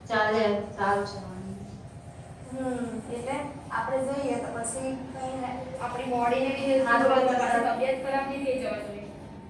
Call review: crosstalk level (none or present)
present